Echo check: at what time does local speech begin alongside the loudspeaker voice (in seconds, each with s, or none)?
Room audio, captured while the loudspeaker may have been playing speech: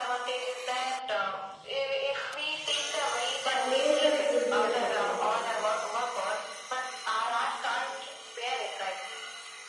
3.5 s